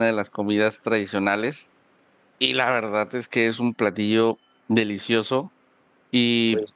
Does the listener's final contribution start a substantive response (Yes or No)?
No